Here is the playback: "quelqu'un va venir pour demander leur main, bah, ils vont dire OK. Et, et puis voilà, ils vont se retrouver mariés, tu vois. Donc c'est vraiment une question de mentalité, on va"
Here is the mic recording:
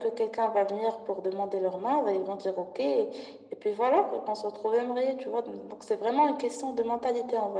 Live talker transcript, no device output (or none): none